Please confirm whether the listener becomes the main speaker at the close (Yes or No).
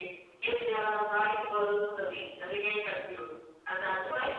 No